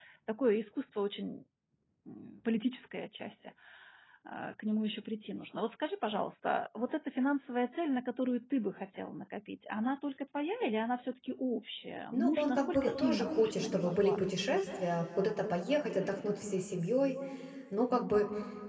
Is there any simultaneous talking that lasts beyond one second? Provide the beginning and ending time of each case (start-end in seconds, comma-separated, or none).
12.1-14.3